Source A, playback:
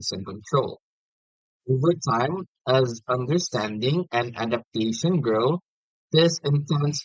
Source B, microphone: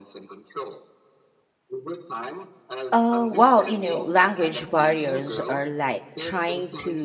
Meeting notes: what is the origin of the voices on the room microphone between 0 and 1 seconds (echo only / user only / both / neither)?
echo only